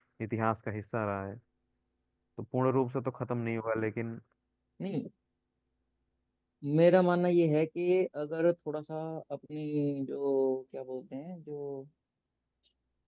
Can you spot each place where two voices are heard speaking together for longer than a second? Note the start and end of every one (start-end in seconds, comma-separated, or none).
none